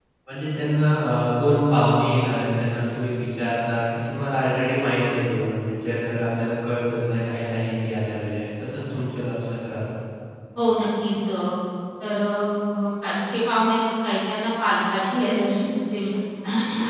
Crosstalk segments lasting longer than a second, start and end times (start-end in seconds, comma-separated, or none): none